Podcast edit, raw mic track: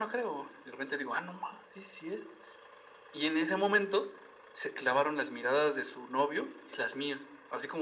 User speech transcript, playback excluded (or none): none